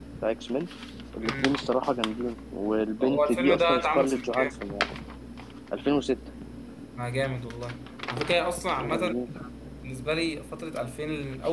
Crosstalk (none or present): present